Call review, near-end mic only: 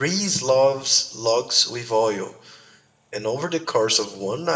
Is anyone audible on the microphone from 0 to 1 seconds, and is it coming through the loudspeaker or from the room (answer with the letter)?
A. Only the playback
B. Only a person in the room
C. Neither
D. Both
B